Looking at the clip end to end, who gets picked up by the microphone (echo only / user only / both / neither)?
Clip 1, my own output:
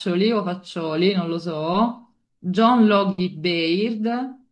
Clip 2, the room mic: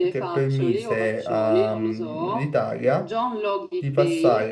both